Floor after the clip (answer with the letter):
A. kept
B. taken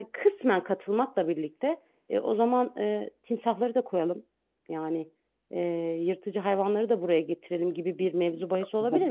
A